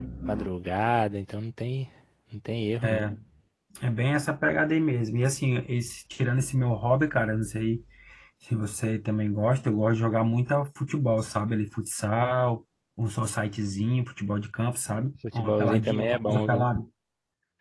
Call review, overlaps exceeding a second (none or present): present